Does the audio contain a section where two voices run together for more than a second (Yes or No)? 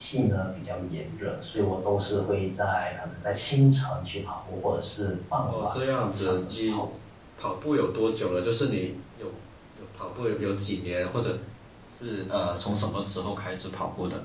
Yes